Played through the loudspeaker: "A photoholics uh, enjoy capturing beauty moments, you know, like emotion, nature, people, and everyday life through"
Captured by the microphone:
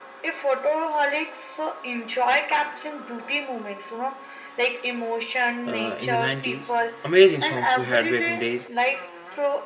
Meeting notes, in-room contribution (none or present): present